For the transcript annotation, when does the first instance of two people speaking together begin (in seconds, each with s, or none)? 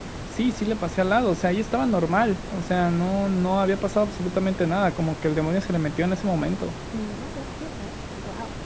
none